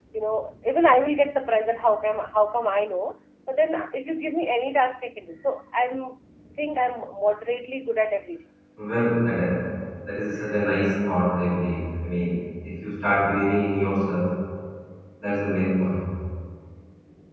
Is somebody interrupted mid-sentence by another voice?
No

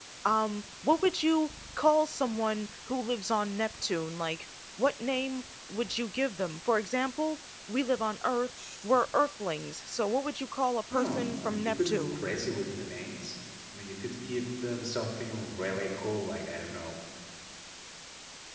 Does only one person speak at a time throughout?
No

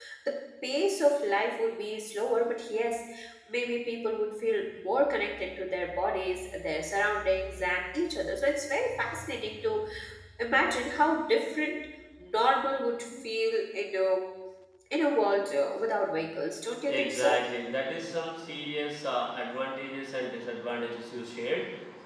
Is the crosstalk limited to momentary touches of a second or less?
Yes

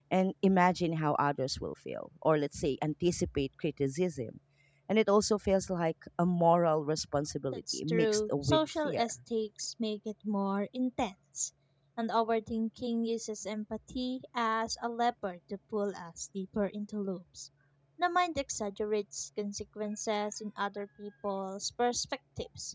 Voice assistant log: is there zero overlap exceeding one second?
No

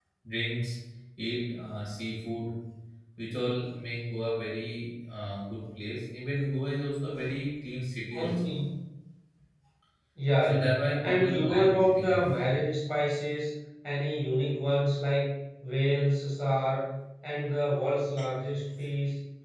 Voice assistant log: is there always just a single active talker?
No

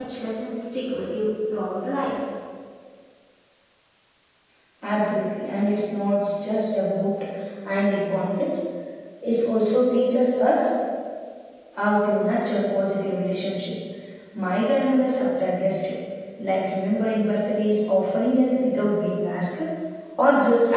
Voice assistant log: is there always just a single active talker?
Yes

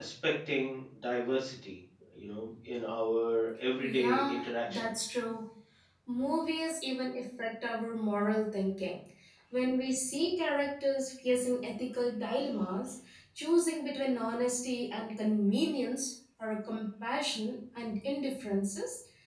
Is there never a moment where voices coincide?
No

